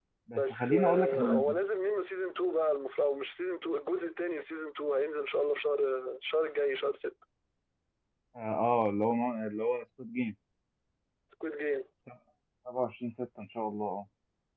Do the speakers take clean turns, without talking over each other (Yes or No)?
No